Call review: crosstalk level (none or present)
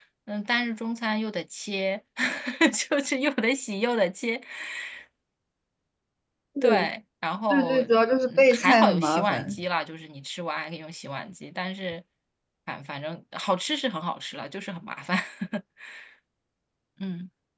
present